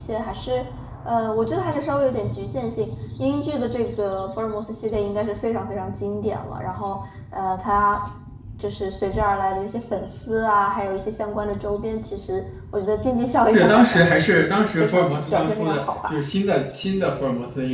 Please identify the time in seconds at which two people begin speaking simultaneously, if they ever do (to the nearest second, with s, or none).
14 s